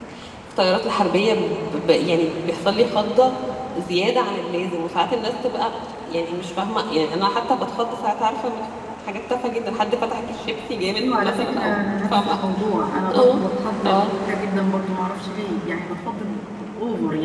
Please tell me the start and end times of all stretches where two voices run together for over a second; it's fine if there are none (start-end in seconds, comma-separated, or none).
11.0-12.4